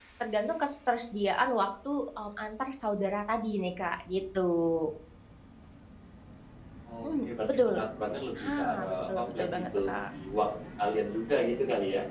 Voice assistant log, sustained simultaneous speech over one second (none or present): present